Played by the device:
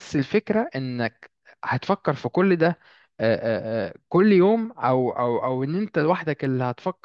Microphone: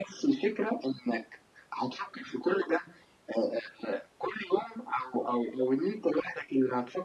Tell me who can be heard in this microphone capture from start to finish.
echo only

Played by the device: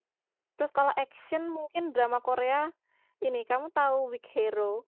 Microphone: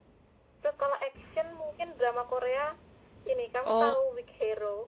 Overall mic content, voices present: both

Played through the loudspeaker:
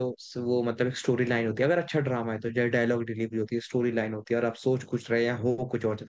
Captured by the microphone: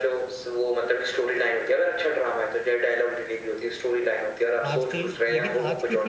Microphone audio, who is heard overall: both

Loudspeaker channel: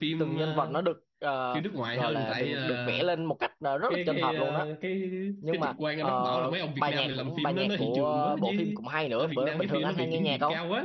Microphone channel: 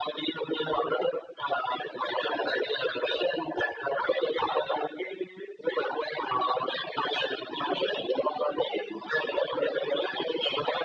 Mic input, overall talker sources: echo only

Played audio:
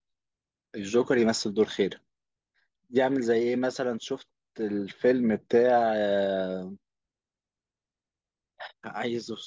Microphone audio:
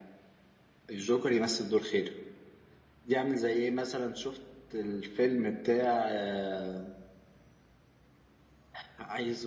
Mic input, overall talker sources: echo only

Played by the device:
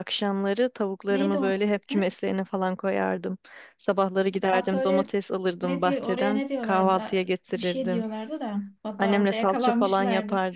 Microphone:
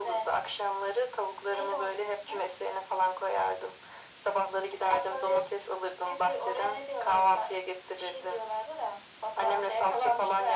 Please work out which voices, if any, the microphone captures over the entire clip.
echo only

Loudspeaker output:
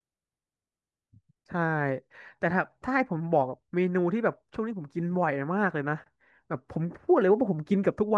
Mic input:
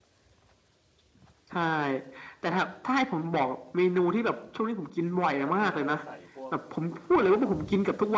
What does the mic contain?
both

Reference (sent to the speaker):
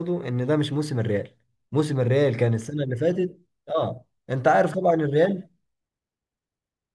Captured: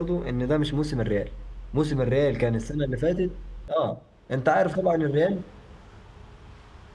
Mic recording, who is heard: echo only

